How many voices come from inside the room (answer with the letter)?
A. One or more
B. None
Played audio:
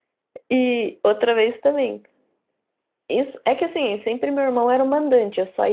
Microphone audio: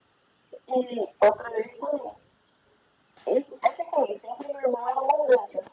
B